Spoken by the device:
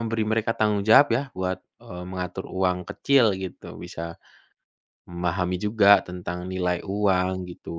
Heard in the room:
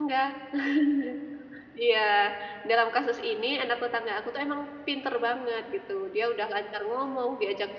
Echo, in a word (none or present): none